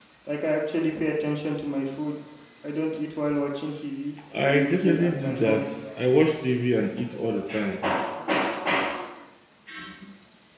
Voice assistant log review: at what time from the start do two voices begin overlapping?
4.3 s

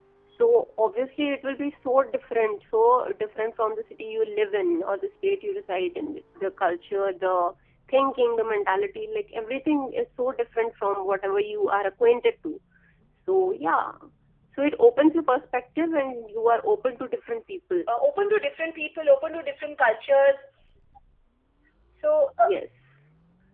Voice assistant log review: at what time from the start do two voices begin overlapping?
none

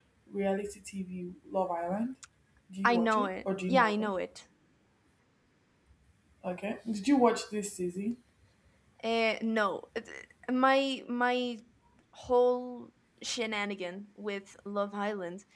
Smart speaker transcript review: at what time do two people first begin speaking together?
2.8 s

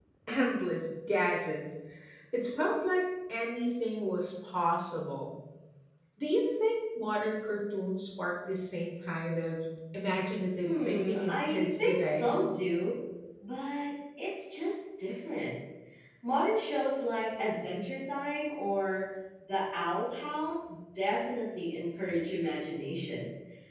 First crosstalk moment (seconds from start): 10.6 s

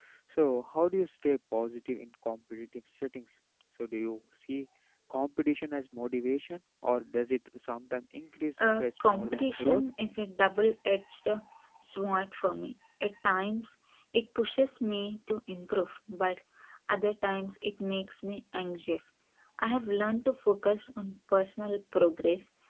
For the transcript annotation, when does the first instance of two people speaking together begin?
8.6 s

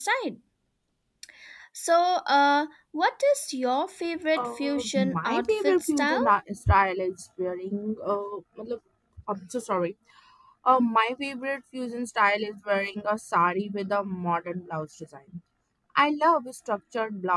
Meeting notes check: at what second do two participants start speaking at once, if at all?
4.3 s

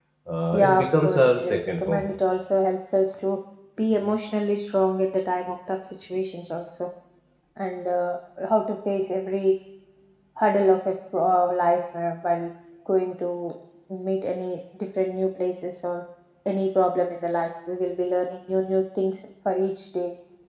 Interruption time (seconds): 0.5 s

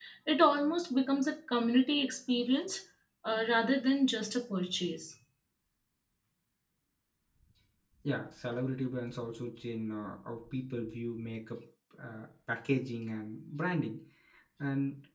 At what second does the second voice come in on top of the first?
none

